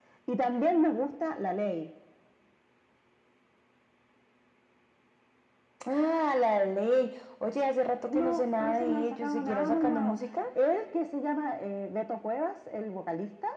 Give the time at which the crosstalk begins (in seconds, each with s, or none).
8.1 s